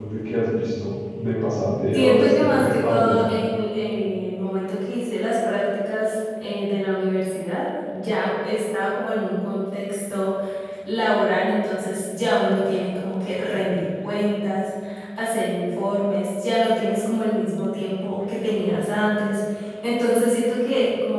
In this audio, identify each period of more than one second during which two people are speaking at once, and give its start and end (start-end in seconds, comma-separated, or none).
1.9-3.2